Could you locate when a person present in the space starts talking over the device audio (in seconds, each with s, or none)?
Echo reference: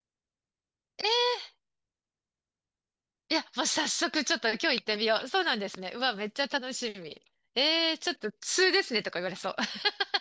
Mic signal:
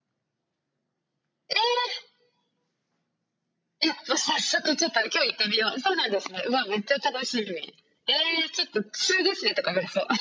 none